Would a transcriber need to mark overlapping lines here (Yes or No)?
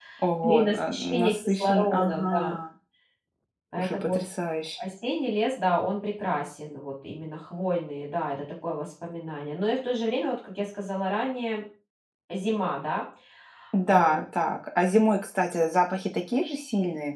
Yes